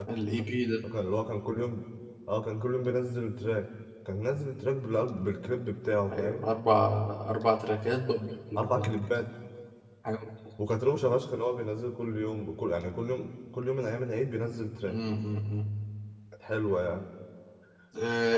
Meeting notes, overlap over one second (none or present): none